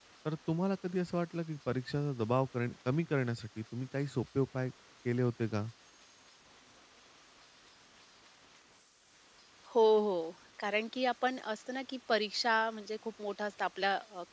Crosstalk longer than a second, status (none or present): none